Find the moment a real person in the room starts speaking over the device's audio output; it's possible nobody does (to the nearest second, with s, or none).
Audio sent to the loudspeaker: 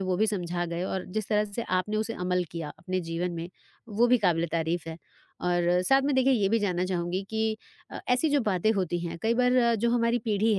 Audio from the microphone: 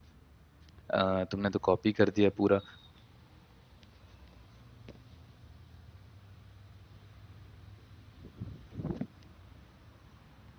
1 s